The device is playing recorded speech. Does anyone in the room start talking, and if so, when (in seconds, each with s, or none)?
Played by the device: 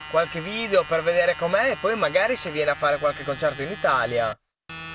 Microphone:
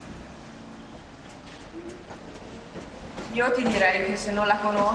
3.3 s